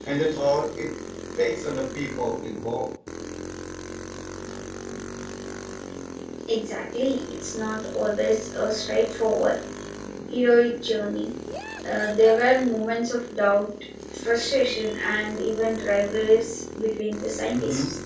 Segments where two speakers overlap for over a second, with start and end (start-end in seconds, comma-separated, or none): none